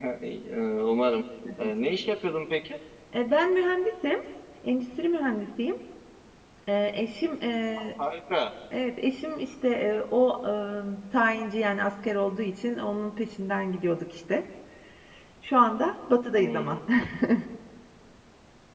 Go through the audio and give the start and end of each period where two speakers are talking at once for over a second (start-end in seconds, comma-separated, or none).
none